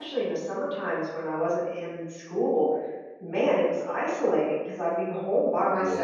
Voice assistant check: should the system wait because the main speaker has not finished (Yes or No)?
Yes